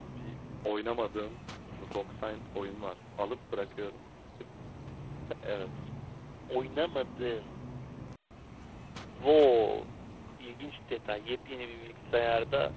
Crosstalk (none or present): none